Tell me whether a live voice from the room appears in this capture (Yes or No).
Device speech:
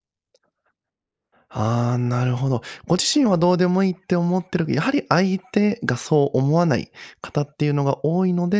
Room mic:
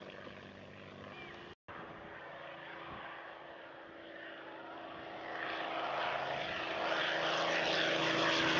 No